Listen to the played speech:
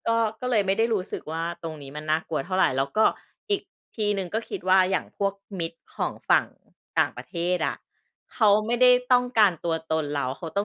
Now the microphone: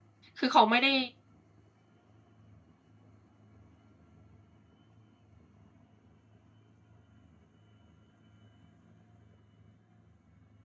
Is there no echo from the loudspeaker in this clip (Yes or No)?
Yes